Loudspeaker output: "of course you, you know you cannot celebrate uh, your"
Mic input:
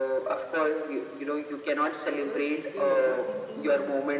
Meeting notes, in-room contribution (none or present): present